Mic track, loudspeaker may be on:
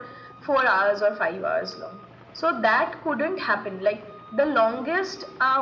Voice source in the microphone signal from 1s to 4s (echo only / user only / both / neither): echo only